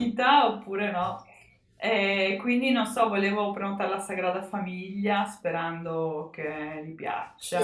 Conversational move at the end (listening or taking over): taking over